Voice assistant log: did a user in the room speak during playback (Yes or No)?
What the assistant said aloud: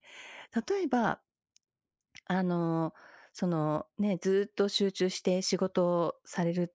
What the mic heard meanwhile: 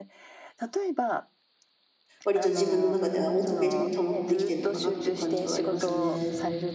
Yes